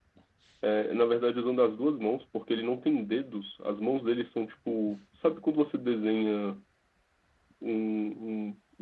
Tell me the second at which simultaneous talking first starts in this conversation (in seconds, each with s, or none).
none